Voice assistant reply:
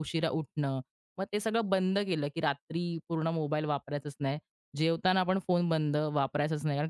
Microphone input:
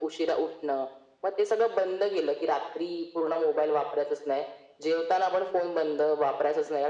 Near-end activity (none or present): none